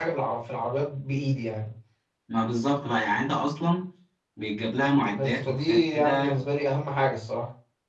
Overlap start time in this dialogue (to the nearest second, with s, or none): 5 s